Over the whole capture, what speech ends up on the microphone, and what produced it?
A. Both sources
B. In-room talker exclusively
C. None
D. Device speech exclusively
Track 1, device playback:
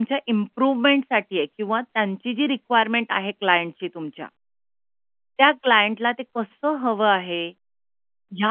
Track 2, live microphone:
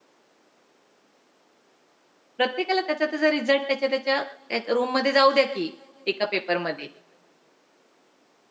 B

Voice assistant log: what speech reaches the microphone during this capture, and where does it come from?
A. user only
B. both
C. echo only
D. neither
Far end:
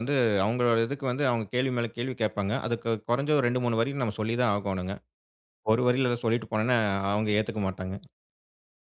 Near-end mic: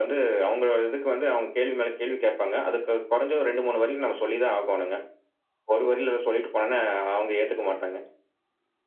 C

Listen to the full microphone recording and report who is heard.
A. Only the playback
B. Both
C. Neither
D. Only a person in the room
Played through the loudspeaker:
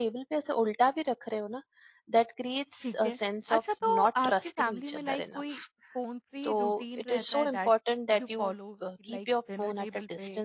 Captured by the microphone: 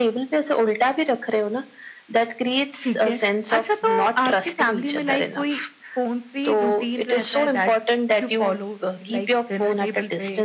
A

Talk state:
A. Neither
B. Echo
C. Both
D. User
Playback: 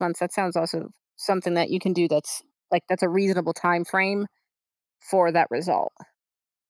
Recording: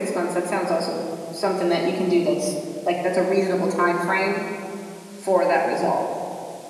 B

